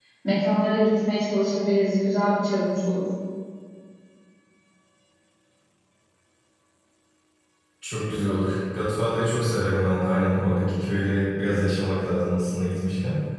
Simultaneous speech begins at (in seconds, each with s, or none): none